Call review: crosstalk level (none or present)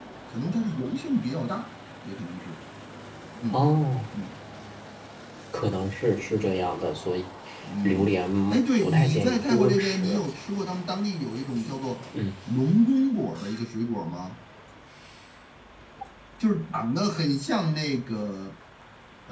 present